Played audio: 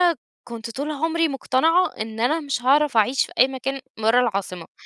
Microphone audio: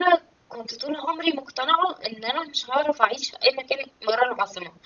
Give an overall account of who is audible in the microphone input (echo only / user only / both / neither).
echo only